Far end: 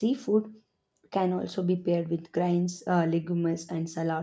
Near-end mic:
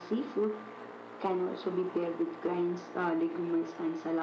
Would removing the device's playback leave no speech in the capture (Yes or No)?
Yes